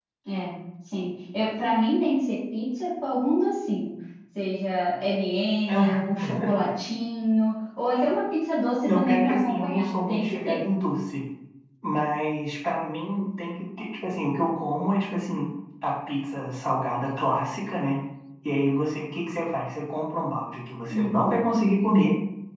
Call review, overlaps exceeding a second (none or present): present